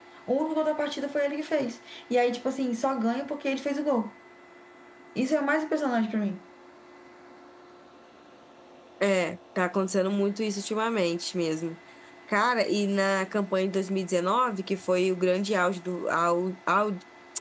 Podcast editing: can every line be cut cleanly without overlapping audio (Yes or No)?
Yes